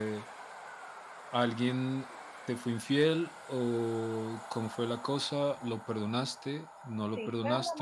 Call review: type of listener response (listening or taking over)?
taking over